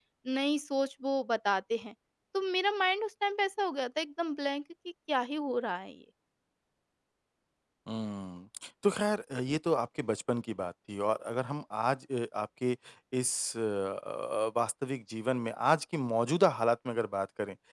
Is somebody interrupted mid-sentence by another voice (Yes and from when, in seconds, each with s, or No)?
No